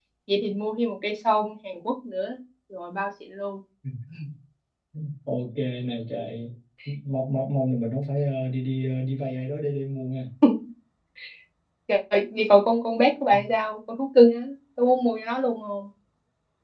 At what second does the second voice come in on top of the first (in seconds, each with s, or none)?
none